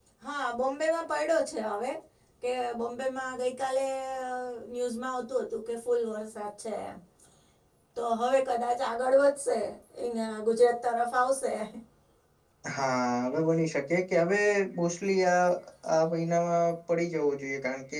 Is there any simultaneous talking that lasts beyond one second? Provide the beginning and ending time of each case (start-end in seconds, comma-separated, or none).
none